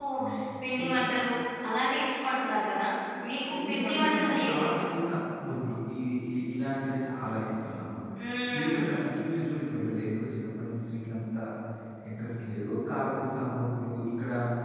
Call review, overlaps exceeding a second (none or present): present